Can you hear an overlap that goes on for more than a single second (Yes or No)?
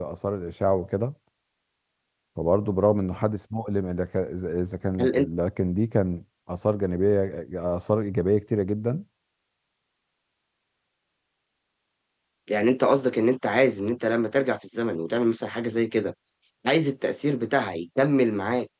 No